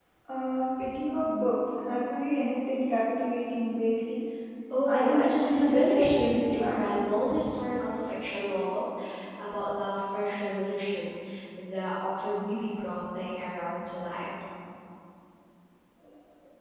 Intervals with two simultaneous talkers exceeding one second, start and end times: 4.9-6.8

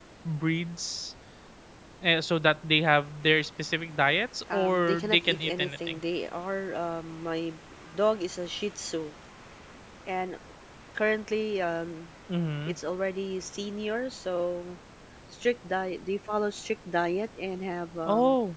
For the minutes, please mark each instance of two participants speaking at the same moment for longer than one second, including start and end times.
4.5-6.0

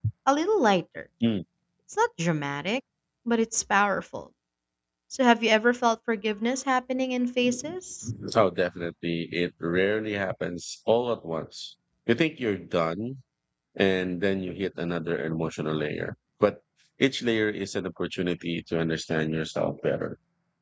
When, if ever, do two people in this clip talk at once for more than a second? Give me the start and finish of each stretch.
none

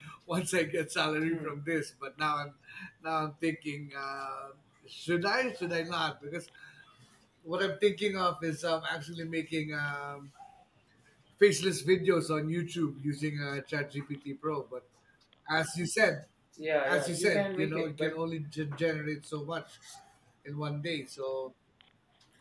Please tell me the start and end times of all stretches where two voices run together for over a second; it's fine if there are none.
16.9-18.2

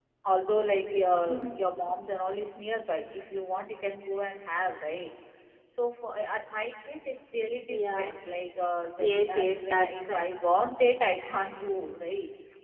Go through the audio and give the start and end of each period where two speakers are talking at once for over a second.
9.0-10.3

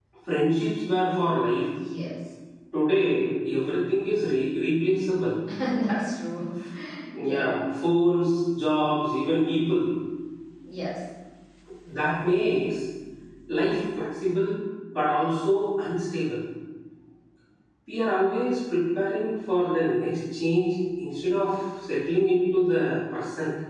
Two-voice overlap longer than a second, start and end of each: none

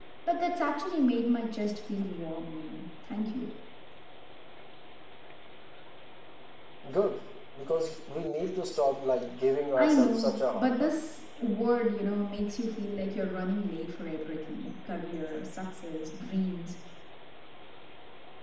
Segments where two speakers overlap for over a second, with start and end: 9.8-11.0

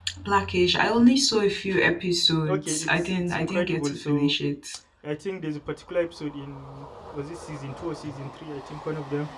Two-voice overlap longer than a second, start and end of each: 2.5-4.3

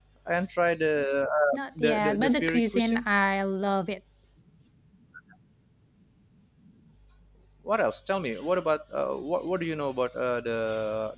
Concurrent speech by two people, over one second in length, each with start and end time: 1.5-3.1

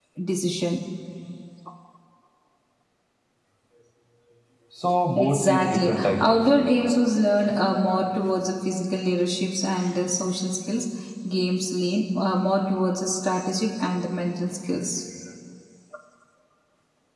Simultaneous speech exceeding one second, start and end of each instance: 5.2-6.8

